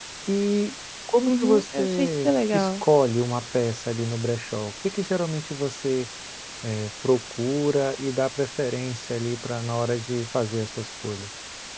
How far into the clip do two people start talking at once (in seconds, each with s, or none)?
1.2 s